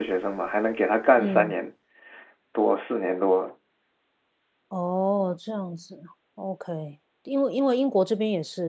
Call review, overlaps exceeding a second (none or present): none